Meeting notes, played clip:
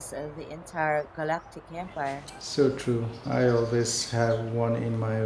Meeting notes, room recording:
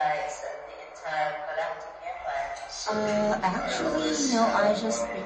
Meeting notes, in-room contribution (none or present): present